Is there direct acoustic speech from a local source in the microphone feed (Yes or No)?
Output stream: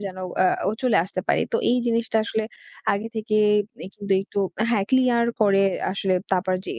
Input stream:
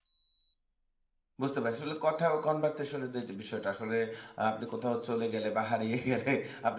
Yes